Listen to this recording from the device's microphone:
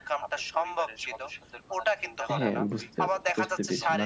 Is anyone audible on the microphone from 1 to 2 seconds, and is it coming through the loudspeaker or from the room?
echo only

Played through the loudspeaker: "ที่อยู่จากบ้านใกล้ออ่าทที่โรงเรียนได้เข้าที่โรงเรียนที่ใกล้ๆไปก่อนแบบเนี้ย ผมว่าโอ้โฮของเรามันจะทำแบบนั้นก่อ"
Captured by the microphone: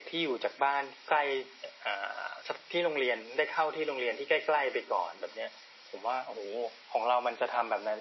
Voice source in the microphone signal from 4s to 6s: echo only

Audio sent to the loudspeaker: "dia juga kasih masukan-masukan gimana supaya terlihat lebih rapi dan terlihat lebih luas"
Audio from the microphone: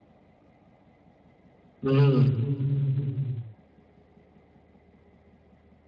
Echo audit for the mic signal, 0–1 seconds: neither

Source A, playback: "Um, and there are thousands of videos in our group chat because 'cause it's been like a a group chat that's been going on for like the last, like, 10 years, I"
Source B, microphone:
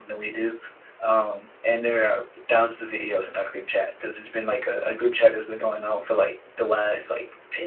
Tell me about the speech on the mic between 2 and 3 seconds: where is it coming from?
echo only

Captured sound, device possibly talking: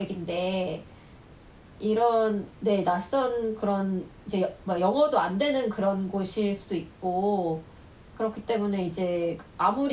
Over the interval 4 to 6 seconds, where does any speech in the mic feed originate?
user only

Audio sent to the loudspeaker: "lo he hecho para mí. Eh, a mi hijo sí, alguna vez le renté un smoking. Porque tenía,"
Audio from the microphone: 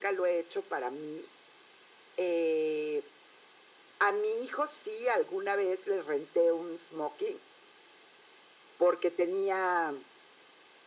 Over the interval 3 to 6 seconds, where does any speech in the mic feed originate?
echo only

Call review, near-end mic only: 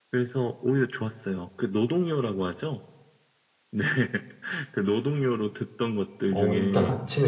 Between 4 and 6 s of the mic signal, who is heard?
echo only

